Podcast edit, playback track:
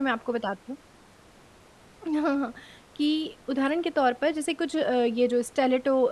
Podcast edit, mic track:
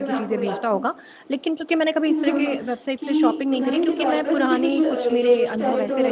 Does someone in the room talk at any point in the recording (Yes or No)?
Yes